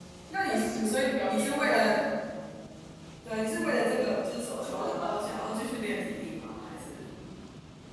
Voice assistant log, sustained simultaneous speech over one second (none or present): present